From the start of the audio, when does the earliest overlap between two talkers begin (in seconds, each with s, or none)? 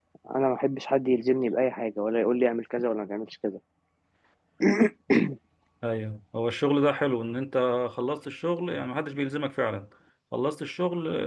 none